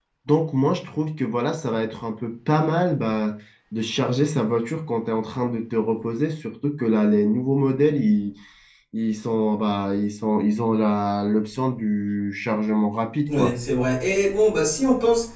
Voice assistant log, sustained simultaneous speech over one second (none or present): none